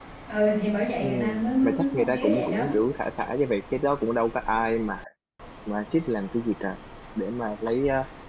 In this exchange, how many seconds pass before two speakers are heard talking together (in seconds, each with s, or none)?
1.0 s